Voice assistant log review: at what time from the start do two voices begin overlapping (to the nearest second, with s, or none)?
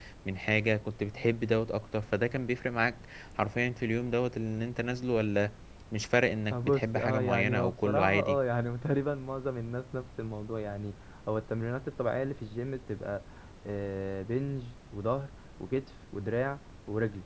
7 s